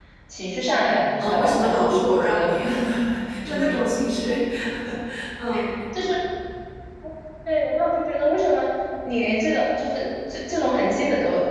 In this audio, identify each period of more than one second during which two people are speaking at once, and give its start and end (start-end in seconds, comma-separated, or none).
1.2-2.5